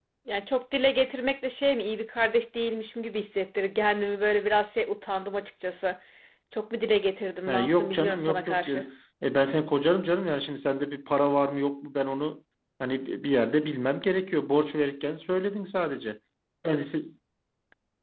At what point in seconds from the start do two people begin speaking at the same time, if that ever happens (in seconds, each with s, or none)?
7.5 s